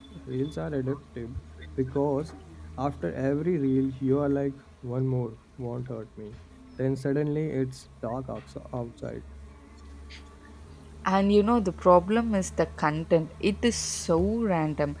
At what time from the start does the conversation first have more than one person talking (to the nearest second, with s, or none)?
none